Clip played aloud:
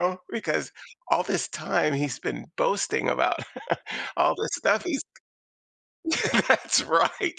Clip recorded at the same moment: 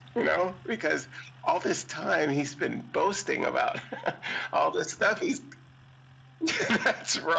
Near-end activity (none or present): none